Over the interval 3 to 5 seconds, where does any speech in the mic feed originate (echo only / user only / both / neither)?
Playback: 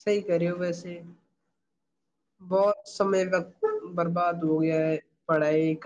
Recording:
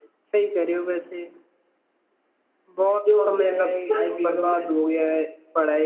both